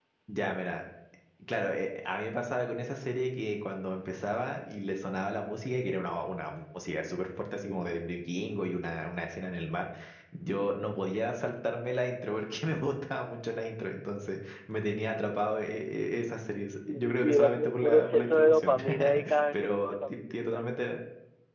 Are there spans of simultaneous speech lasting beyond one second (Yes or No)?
Yes